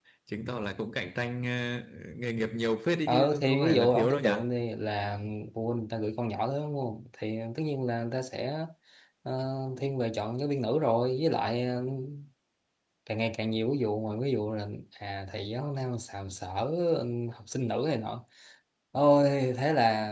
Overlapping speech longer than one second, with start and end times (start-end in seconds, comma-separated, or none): 3.1-4.3